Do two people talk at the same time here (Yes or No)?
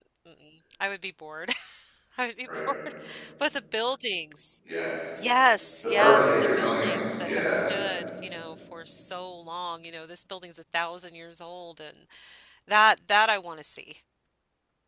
Yes